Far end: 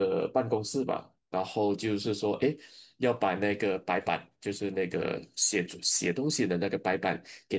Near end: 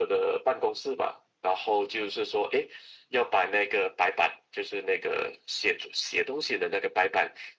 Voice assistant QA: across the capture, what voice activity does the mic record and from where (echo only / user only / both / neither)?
echo only